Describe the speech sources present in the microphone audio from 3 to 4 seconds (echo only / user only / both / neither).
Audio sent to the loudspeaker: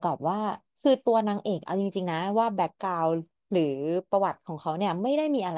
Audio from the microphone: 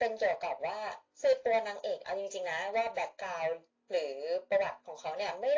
echo only